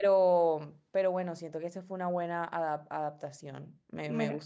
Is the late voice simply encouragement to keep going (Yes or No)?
No